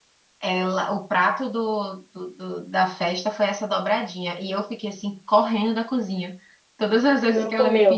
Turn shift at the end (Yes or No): No